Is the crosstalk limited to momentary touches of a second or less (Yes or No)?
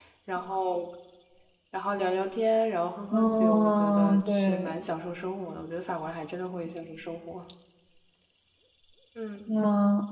No